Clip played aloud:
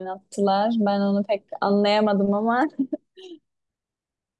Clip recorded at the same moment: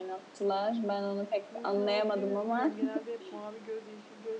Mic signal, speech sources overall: both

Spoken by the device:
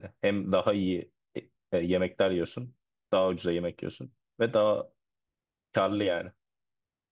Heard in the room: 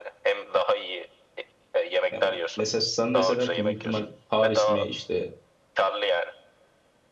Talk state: both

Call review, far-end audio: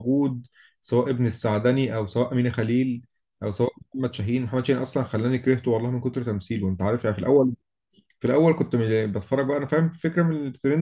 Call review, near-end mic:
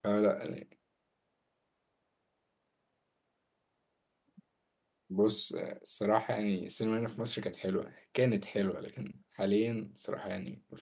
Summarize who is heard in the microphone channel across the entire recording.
user only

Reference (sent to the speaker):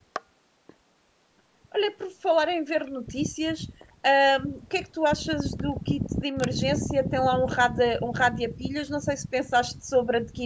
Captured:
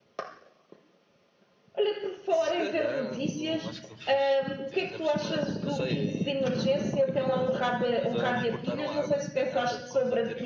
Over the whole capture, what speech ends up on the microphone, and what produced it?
both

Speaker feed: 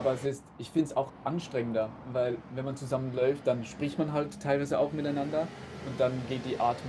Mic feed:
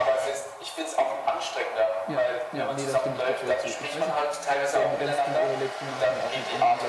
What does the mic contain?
both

